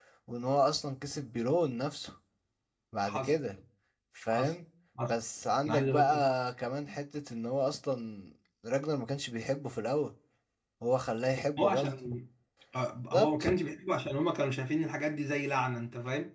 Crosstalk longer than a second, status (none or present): none